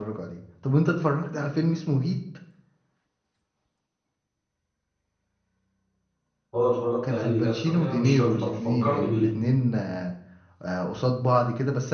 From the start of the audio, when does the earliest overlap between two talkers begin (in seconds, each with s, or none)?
7.0 s